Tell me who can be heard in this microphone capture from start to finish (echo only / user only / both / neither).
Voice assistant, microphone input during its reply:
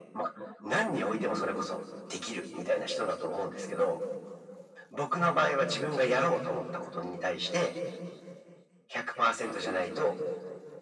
echo only